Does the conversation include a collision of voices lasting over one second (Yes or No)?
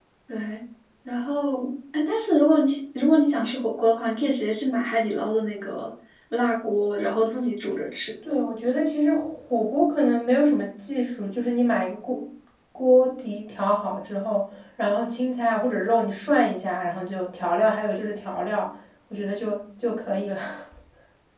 No